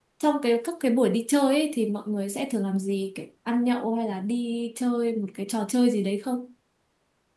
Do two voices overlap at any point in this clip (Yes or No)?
No